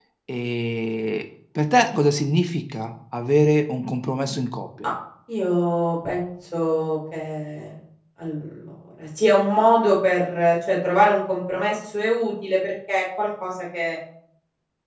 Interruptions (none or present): none